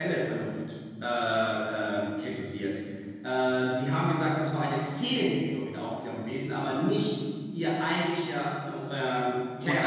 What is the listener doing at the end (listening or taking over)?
taking over